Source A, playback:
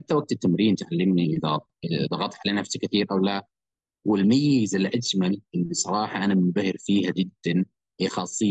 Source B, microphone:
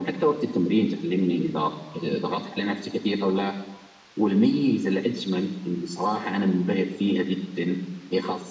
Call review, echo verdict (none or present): present